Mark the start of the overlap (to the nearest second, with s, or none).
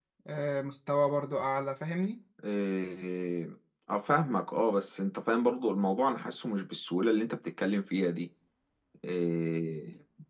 none